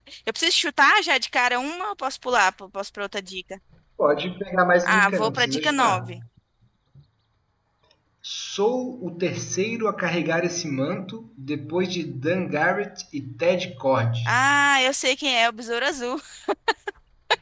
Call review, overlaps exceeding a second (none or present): present